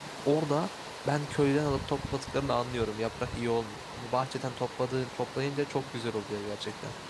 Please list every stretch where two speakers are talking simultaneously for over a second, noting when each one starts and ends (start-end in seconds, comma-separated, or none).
none